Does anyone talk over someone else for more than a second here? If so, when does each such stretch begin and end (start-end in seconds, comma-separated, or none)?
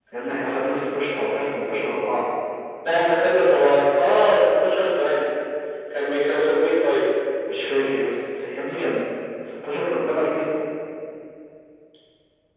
none